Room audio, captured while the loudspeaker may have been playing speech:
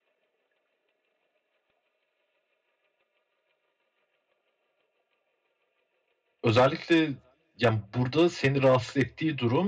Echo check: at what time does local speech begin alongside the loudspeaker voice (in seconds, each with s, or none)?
6.4 s